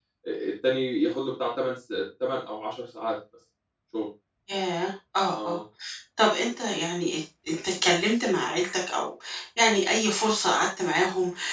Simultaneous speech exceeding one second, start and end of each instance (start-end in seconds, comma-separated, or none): none